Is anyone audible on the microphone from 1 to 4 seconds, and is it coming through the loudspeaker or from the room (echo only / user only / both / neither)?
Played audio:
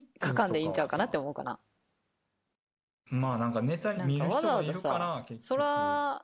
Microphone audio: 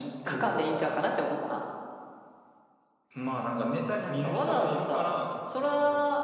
echo only